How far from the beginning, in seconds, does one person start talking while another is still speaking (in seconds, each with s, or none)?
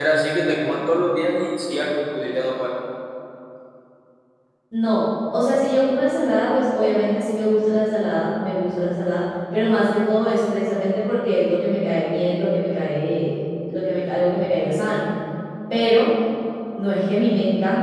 none